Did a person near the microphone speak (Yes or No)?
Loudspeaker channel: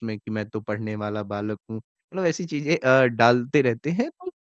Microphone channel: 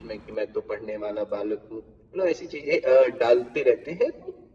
No